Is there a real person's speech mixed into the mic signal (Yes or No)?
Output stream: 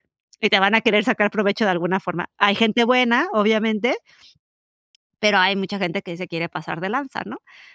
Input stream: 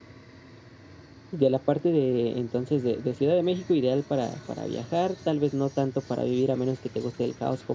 Yes